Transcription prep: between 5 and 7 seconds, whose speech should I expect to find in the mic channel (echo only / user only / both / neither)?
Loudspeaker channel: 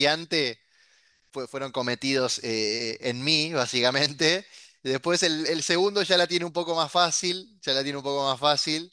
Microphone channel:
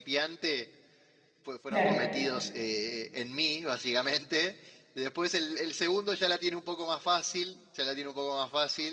echo only